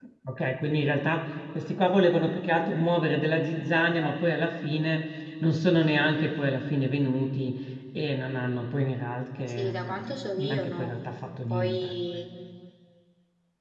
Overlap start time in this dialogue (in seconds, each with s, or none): 9.5 s